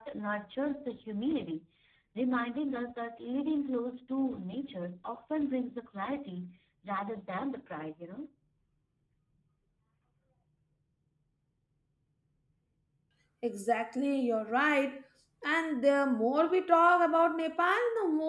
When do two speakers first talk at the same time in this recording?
none

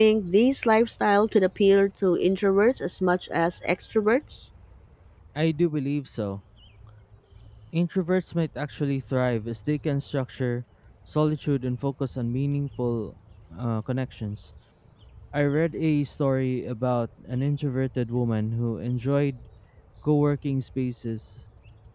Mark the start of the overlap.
none

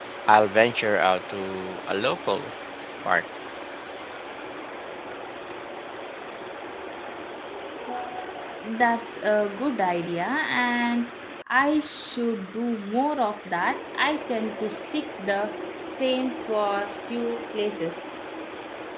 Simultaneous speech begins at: none

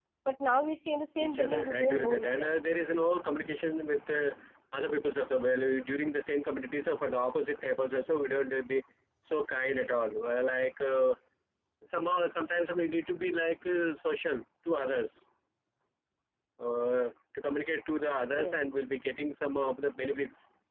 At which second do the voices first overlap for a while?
1.2 s

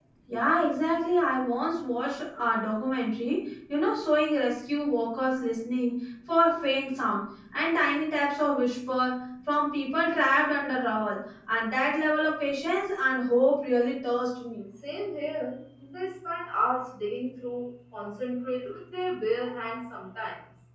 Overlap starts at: none

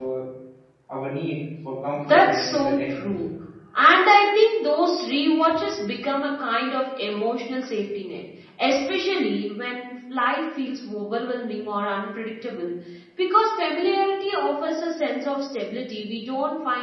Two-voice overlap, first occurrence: 1.9 s

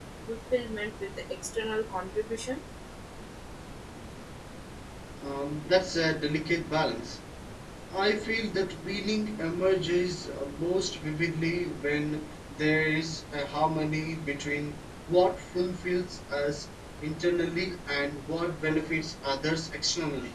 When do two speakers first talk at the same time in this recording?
none

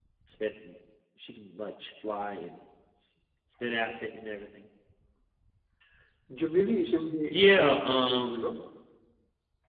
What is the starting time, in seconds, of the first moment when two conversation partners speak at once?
7.3 s

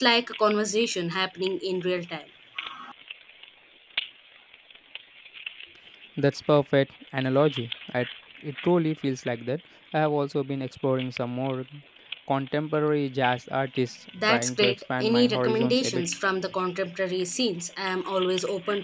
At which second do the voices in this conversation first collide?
14.1 s

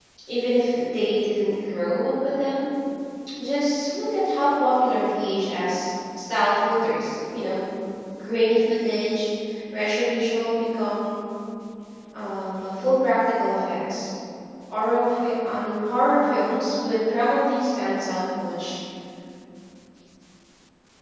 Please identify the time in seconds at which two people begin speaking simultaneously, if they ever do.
none

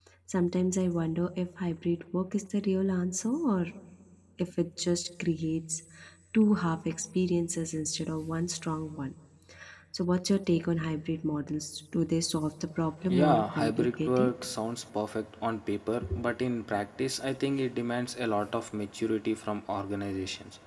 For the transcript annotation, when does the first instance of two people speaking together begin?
13.1 s

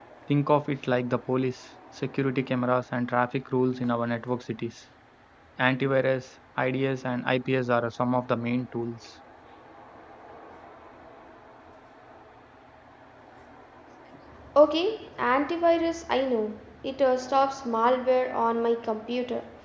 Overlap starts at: none

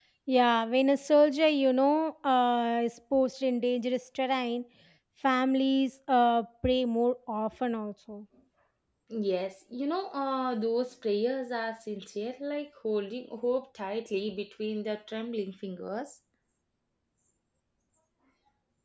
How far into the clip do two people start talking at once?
none

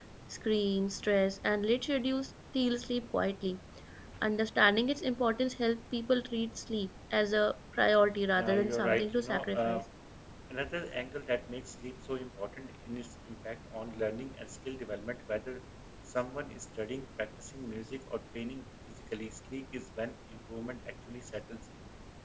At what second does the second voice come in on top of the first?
8.4 s

